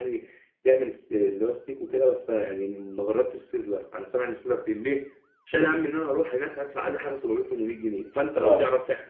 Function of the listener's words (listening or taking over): listening